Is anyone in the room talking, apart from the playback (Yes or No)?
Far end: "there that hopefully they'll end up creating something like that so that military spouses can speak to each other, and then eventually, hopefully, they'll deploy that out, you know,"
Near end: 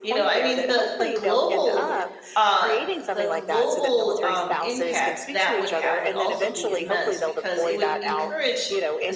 Yes